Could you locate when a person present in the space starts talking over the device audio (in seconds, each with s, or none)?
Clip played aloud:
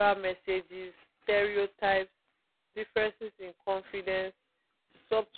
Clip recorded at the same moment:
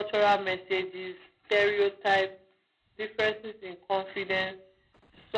none